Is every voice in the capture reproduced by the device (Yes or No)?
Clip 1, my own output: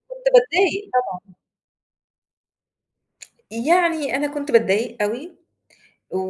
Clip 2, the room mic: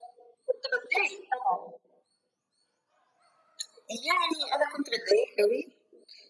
Yes